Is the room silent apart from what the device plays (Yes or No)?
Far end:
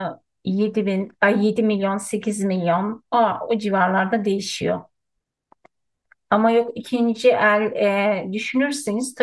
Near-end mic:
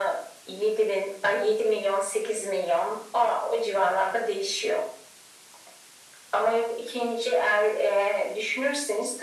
Yes